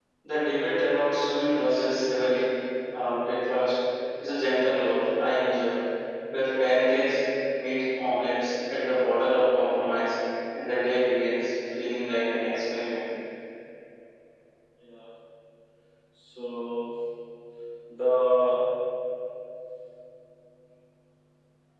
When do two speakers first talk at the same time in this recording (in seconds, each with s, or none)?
none